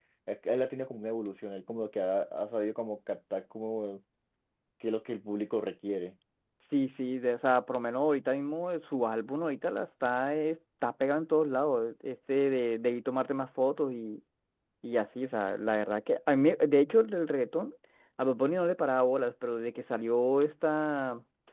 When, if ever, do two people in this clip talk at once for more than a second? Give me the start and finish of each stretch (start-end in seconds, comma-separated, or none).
none